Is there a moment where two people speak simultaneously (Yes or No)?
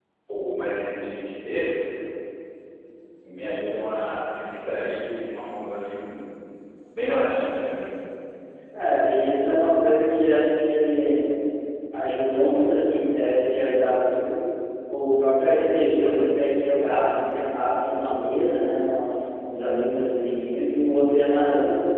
No